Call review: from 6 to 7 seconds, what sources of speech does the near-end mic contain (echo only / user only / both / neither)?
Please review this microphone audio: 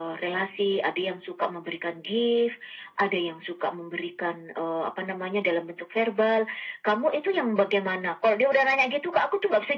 echo only